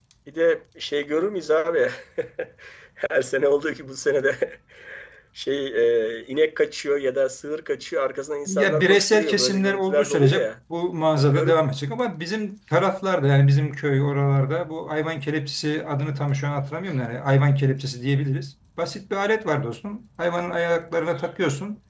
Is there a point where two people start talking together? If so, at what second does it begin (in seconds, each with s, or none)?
8.5 s